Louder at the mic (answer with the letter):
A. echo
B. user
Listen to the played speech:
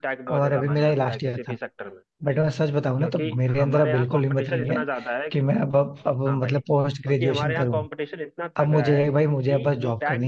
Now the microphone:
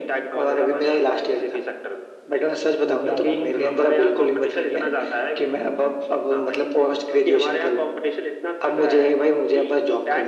A